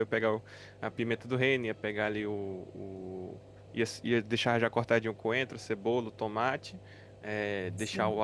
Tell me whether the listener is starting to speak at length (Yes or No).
No